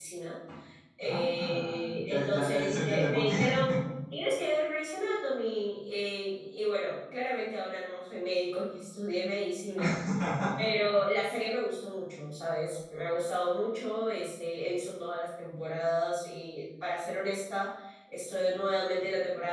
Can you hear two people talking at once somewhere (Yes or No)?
Yes